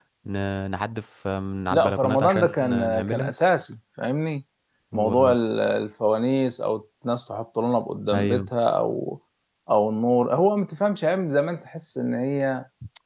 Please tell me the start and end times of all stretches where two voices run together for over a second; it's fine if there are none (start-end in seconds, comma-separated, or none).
1.7-3.3